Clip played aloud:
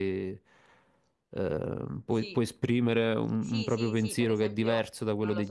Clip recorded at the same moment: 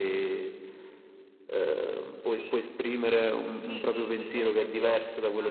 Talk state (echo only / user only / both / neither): echo only